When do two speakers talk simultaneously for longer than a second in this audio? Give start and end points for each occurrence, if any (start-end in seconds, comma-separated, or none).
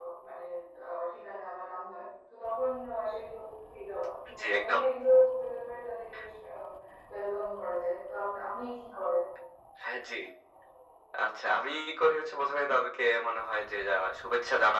none